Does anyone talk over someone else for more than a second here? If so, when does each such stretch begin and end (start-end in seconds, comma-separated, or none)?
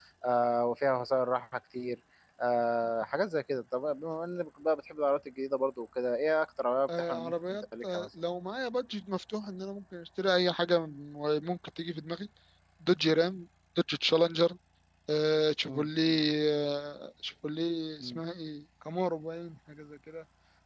6.9-8.1